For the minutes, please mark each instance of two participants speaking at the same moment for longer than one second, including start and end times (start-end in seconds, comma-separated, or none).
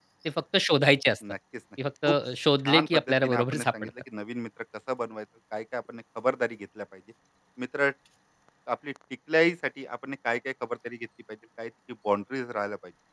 2.7-3.9